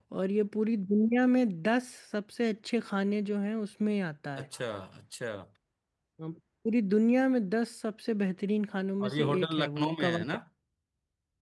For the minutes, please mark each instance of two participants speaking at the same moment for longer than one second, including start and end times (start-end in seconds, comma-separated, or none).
9.0-10.2